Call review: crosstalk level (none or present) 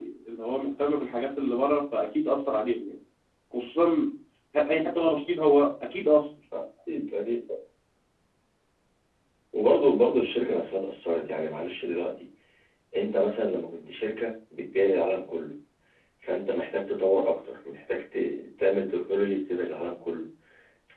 none